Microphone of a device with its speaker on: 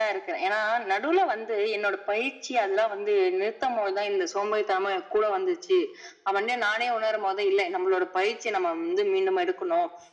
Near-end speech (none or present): none